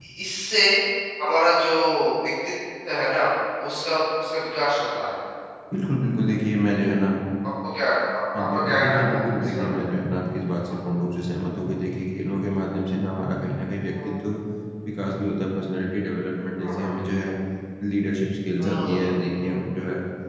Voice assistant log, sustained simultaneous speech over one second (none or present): present